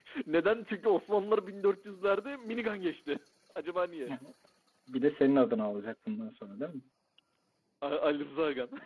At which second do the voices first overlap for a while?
none

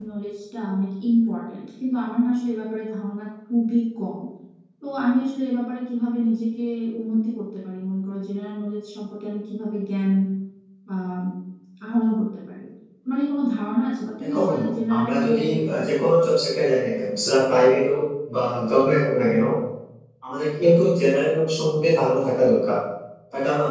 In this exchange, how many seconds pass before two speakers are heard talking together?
14.2 s

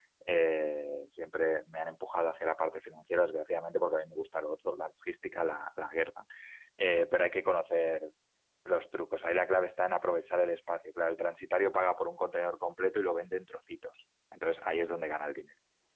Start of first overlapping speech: none

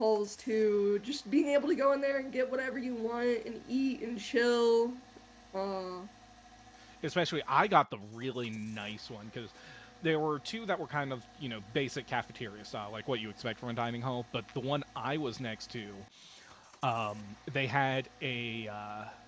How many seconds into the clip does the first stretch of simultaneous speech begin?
none

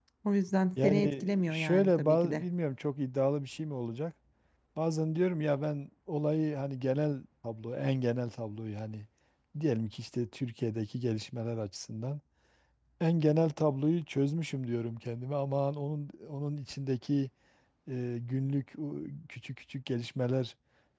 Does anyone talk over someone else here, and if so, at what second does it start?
0.8 s

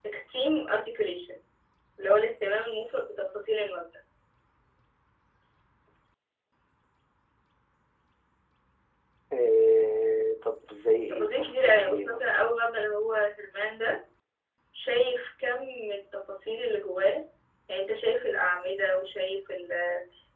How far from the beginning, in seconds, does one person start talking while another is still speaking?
11.1 s

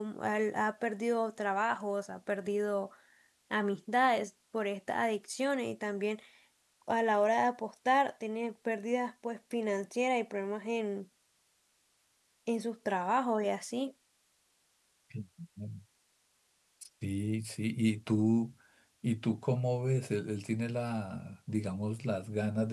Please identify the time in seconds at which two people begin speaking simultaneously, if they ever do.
none

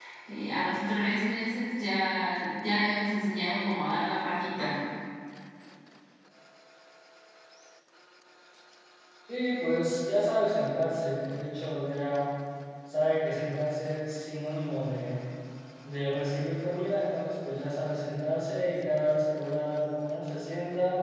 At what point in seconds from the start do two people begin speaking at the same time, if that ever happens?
none

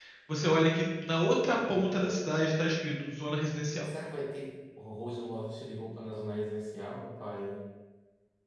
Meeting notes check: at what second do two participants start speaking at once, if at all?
none

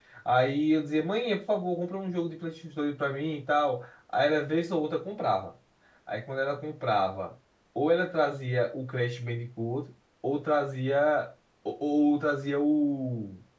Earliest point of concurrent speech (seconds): none

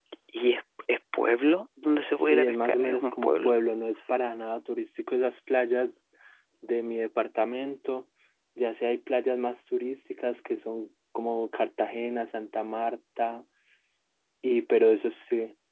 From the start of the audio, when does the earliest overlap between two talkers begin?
2.1 s

